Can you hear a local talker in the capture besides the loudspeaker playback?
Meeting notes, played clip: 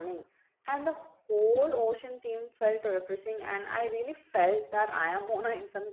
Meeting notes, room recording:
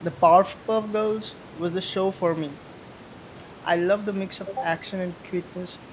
Yes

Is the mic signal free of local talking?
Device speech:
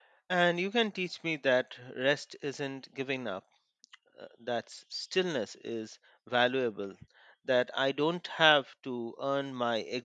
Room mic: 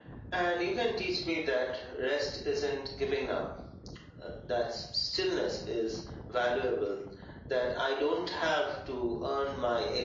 Yes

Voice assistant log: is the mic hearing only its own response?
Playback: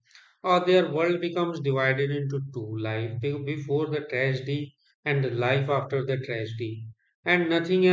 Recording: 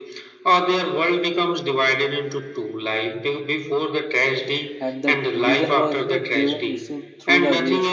No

